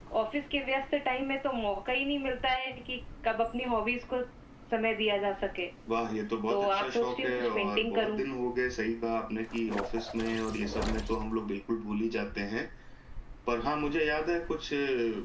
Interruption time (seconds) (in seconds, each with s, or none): 6.5 s